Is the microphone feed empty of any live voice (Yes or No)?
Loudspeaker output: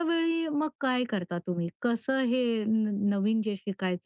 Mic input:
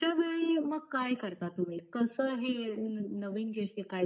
Yes